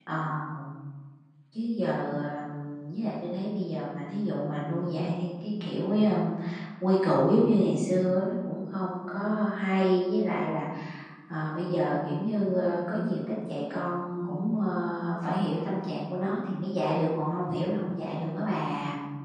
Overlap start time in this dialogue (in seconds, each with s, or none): none